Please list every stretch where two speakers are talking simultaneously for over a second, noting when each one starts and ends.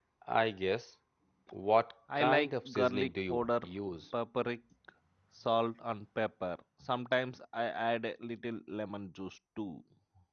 2.2-3.5

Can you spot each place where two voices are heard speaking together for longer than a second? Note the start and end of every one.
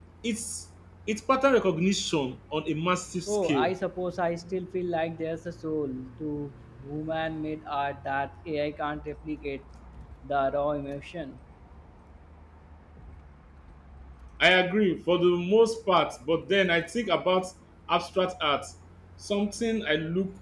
none

